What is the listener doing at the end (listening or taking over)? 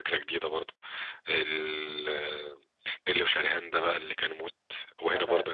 listening